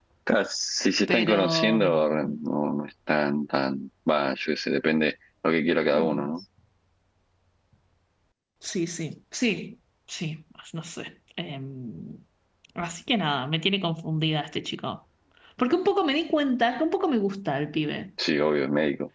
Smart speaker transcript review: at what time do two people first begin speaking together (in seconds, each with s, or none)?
1.1 s